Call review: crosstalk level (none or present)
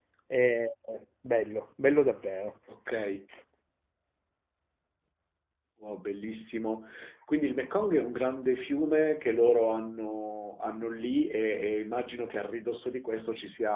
none